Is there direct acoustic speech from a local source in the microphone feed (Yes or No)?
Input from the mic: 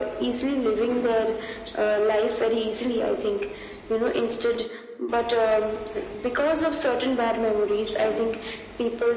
No